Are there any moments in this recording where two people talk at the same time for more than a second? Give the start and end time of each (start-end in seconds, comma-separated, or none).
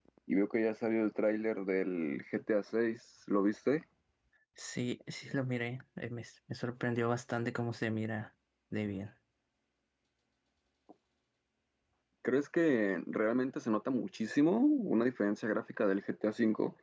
none